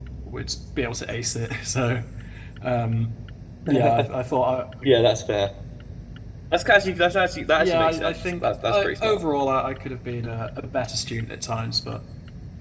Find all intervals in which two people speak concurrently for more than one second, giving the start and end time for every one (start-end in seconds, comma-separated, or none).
7.6-9.2